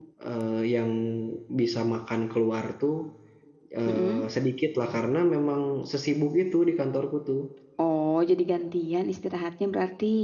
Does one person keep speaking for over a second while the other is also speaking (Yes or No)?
No